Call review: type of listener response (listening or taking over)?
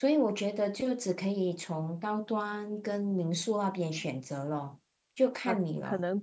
taking over